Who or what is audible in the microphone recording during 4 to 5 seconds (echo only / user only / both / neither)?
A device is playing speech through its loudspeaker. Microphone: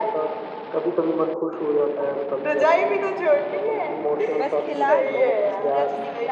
both